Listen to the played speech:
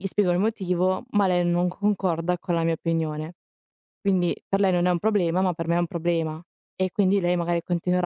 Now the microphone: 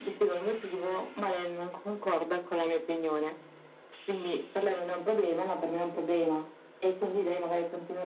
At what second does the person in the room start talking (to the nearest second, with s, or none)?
none